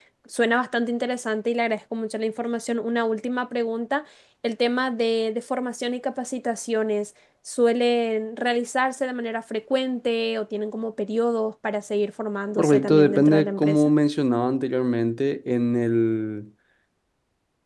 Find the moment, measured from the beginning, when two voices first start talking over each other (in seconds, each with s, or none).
12.6 s